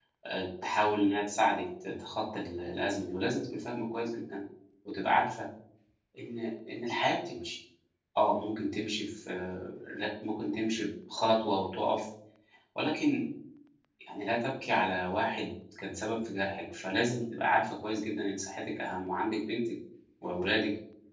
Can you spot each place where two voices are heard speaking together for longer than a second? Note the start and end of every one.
none

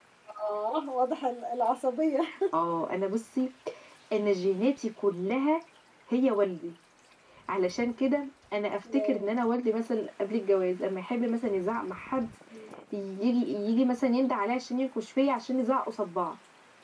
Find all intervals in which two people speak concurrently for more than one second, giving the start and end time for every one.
none

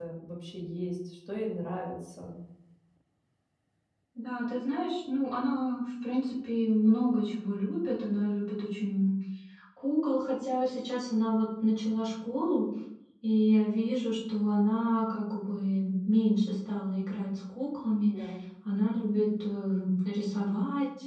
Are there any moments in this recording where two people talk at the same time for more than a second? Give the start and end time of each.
none

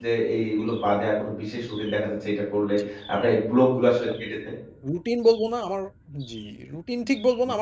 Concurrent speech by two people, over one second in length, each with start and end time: none

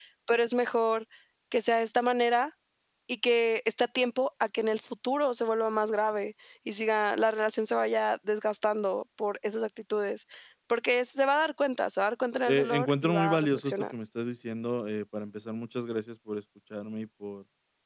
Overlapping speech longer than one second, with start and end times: 12.5-13.7

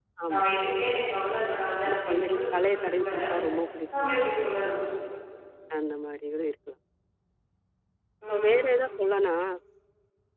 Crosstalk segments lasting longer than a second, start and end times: 1.8-3.0

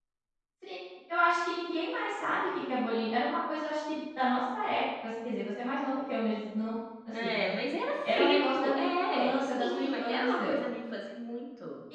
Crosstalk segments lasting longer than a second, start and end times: 8.0-10.6

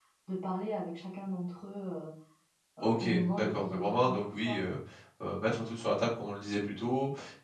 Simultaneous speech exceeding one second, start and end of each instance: 2.8-4.6

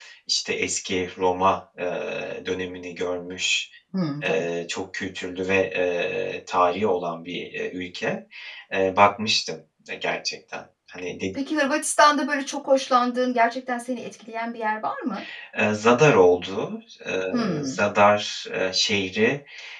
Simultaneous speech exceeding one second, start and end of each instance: none

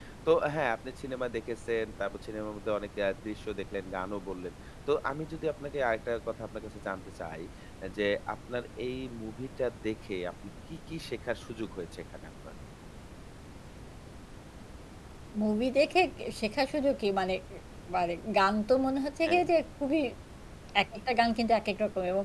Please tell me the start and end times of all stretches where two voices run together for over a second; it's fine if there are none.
none

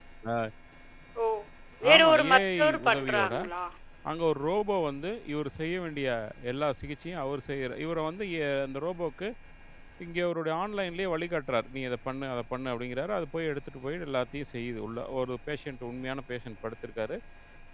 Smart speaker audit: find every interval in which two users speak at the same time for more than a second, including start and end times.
1.9-3.3

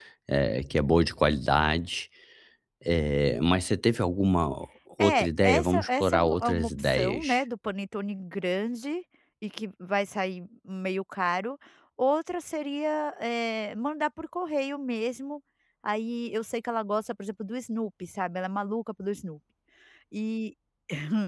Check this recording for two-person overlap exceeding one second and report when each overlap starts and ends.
5.0-7.4

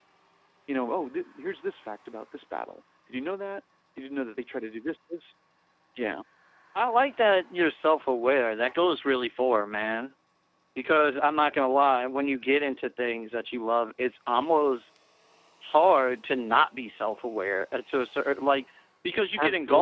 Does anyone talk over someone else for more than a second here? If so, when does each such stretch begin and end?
none

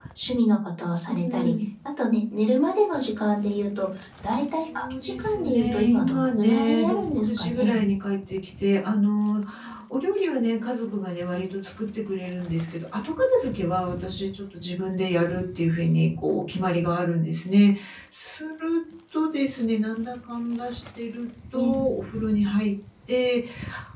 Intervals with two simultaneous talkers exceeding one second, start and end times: 4.7-7.8

